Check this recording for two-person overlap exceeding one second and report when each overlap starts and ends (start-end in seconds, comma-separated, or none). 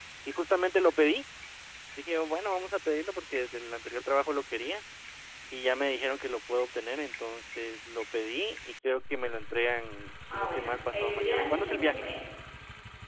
10.3-12.0